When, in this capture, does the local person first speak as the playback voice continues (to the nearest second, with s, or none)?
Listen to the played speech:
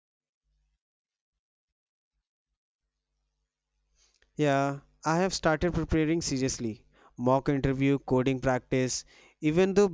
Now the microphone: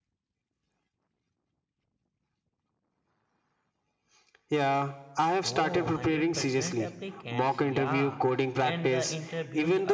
5 s